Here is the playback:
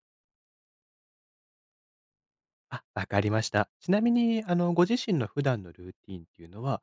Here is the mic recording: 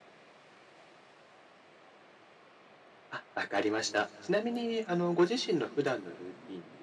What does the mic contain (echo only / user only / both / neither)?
echo only